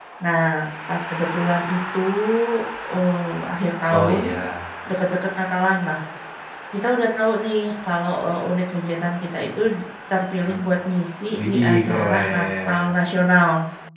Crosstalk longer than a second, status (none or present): present